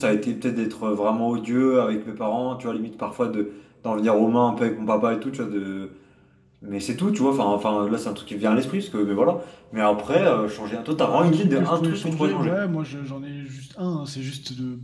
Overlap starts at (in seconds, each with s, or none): 11.0 s